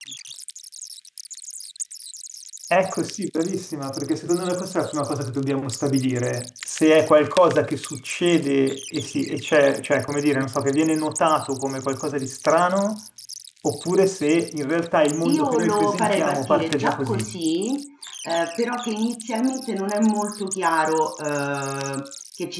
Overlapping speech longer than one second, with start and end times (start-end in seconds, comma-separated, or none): 15.2-17.3